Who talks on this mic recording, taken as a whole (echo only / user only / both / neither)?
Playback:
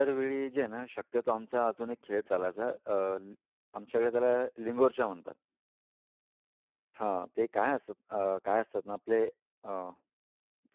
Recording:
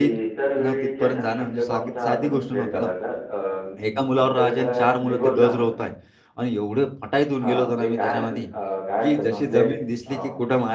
both